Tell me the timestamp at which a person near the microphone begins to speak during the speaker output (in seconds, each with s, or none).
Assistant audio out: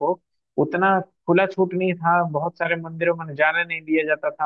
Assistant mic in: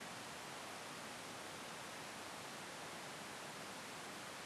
none